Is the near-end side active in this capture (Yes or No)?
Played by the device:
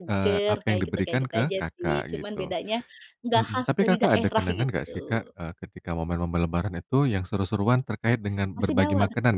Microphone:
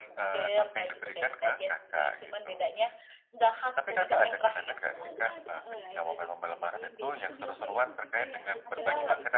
Yes